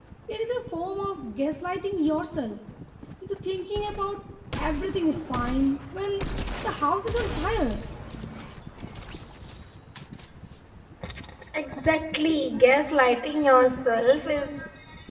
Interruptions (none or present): none